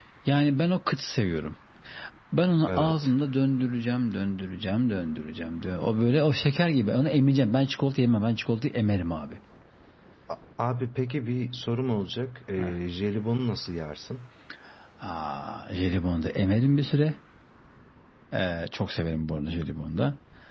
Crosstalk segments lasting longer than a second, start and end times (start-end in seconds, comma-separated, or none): none